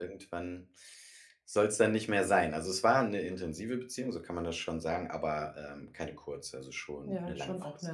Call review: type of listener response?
taking over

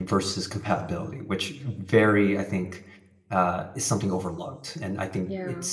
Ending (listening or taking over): listening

